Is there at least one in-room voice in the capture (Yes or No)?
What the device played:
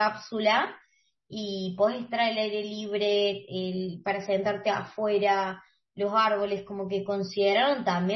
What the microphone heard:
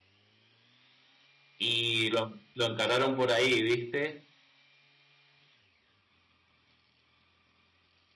Yes